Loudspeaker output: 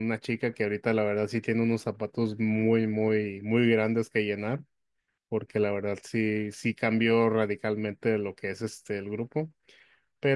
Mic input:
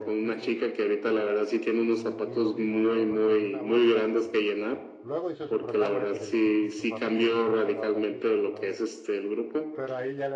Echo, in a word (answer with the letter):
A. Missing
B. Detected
B